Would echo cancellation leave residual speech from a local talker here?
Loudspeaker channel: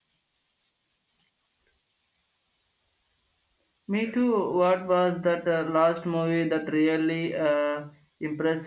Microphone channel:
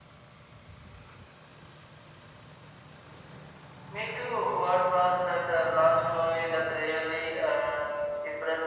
No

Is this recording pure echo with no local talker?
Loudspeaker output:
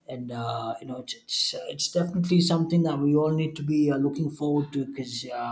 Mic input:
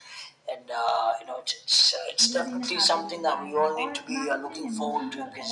No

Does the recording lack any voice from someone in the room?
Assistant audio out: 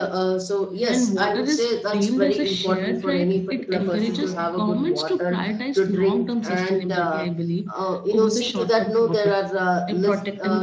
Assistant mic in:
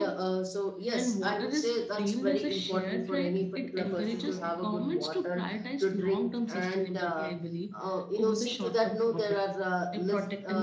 Yes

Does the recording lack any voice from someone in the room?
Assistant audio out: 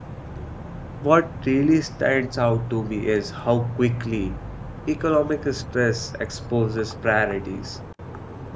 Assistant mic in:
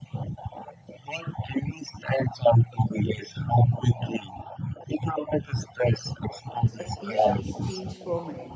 No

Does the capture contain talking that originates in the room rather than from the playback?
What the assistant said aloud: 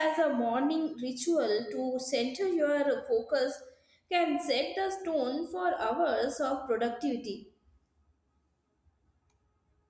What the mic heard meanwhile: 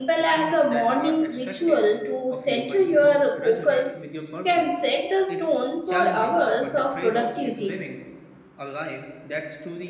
Yes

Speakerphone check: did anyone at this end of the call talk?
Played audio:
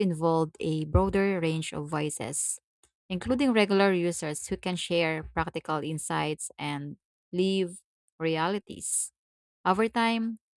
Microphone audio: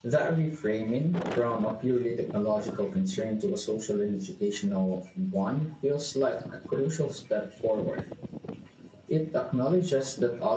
Yes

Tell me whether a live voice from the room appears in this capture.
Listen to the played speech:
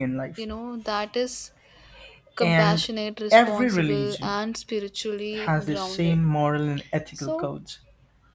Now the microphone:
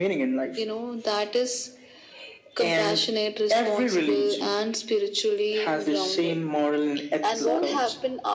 Yes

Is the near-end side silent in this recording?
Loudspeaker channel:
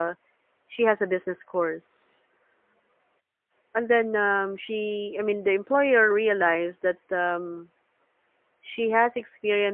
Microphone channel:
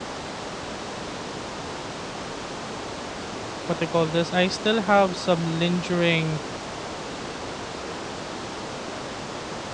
No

